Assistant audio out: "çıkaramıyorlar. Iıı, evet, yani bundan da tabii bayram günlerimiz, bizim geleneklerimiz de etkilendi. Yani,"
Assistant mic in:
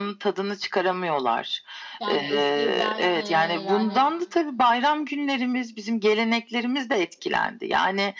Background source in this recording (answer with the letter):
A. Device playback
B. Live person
B